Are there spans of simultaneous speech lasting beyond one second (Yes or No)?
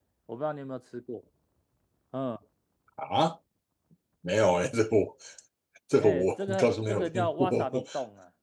Yes